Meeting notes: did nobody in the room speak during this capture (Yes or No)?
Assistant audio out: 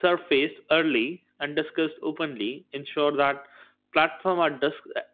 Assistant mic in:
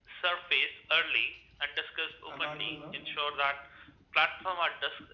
No